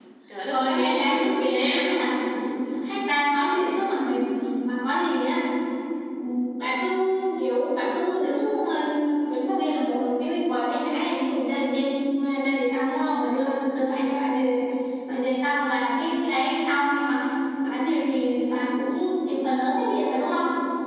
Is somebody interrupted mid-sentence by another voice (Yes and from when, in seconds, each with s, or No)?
Yes, from 0.5 s